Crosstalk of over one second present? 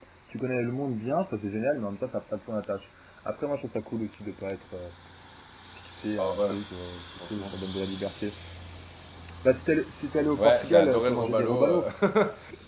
Yes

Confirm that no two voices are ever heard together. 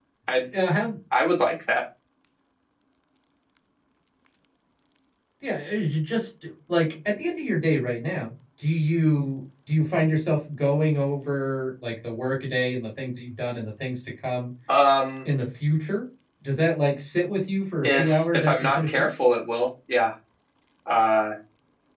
No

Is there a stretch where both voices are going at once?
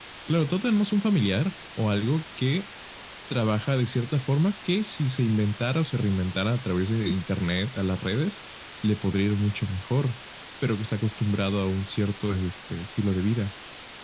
No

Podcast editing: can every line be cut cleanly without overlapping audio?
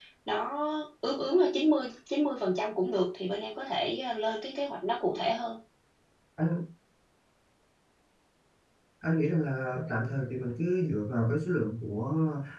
Yes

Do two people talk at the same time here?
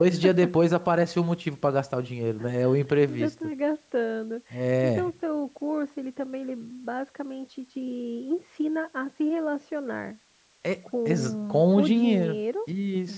Yes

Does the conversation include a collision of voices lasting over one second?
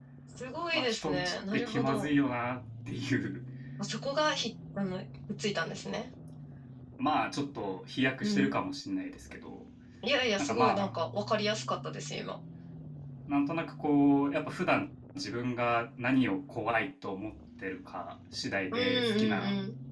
Yes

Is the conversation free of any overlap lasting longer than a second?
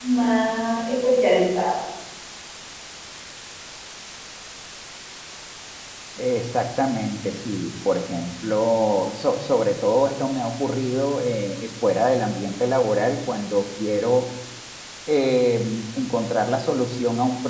Yes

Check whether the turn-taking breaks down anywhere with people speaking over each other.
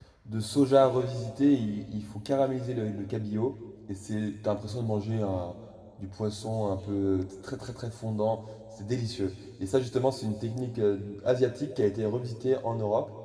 No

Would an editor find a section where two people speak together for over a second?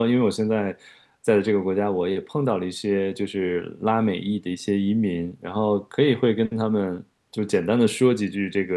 No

